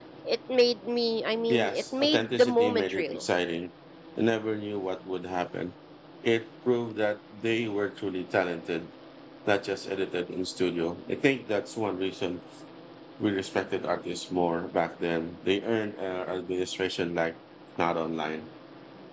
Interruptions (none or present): present